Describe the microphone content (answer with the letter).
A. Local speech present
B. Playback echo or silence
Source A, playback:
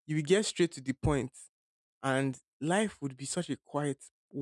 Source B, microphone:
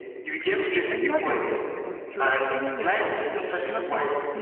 A